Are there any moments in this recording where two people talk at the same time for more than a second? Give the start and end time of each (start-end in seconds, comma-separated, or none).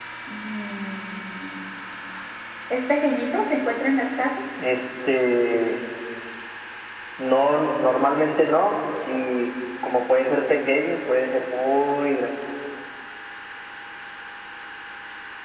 none